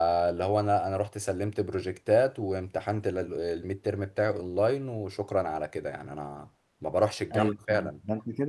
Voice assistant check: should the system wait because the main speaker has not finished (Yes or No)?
No